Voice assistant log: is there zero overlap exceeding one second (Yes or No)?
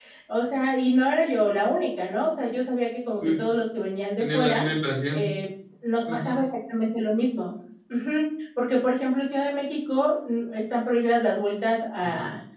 Yes